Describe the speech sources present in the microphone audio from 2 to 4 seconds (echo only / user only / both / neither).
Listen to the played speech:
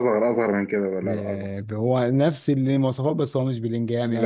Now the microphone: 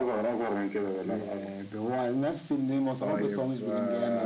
both